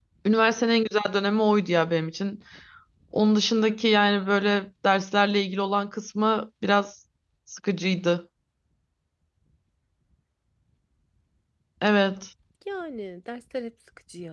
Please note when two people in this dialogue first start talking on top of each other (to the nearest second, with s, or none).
none